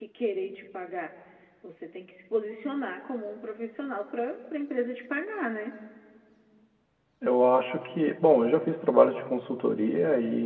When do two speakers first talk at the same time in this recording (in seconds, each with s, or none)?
none